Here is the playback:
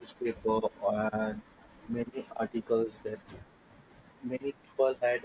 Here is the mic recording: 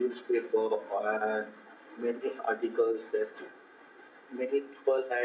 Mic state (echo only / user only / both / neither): echo only